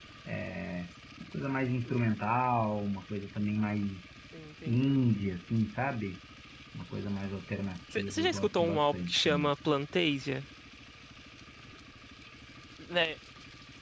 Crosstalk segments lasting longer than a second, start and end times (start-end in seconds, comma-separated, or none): 8.1-9.5